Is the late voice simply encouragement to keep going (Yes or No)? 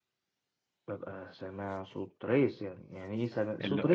No